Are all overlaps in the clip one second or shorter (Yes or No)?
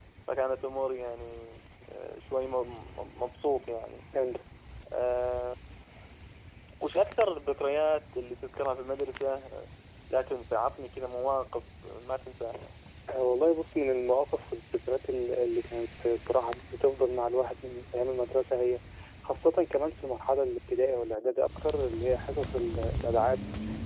Yes